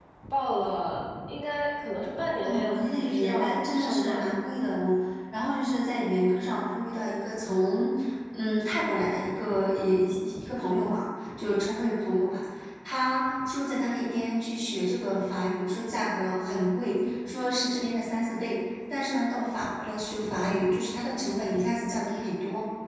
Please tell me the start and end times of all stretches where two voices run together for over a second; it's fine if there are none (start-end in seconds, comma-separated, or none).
2.4-4.3